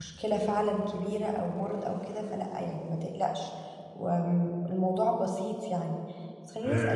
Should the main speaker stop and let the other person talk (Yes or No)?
No